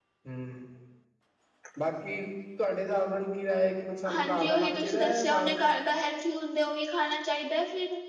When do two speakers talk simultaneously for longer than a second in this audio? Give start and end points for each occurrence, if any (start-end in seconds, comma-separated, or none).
4.1-5.6